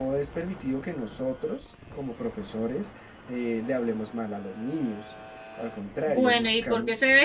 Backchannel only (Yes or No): No